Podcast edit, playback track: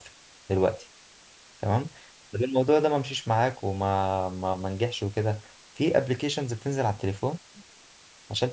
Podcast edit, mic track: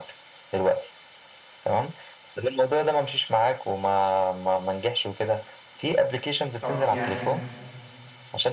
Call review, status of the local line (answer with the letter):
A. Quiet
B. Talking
B